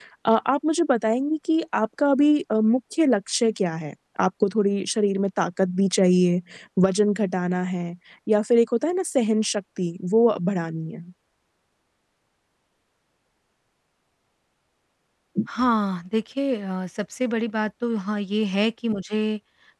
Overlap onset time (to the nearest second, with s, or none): none